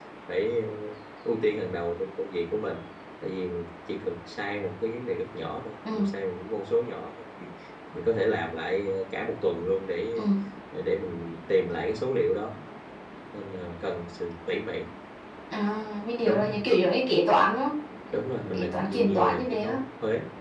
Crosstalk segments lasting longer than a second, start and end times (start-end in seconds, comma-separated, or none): 18.5-19.8